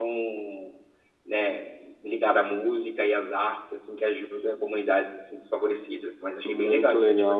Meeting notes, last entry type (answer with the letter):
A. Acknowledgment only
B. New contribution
B